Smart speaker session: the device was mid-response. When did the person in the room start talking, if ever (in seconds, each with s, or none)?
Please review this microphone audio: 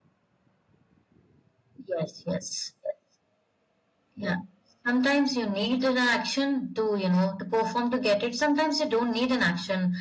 none